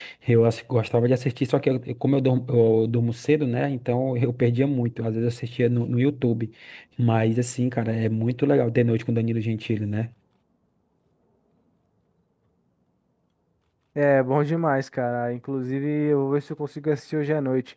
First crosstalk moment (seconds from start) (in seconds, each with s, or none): none